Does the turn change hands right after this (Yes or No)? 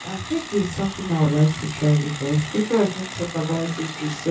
No